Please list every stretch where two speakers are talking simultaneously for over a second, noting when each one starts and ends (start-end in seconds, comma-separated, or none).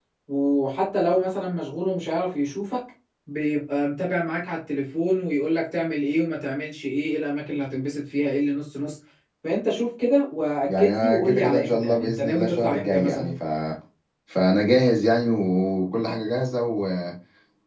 10.7-13.3